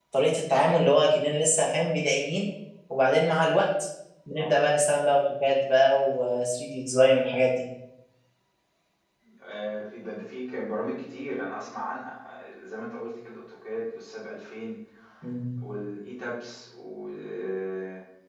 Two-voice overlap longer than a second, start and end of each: none

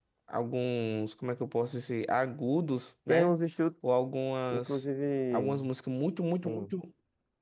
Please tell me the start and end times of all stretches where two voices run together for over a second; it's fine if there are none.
none

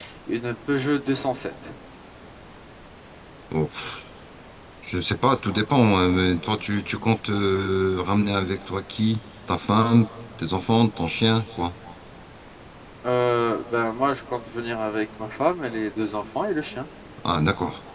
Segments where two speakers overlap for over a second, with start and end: none

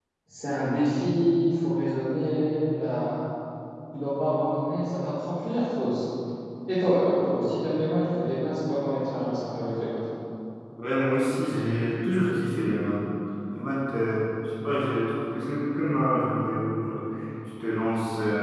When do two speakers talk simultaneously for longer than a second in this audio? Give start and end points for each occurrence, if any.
none

